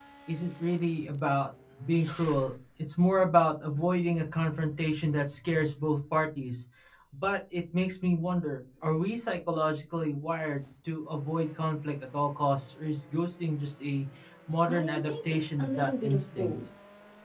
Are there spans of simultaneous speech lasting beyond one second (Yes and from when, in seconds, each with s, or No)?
Yes, from 14.7 s